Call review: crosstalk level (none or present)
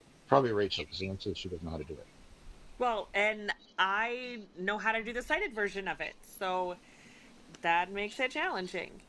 none